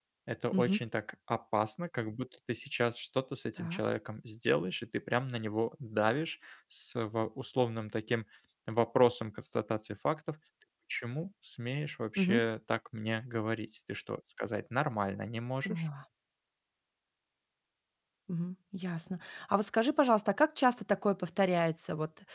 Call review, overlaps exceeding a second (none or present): none